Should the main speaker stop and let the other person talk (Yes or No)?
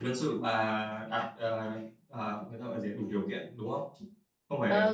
Yes